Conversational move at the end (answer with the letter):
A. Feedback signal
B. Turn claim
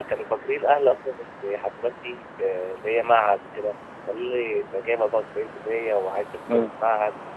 A